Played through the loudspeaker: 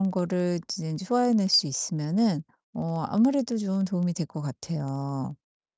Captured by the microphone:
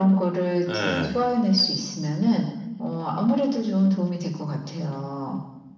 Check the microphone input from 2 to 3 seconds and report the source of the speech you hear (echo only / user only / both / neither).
echo only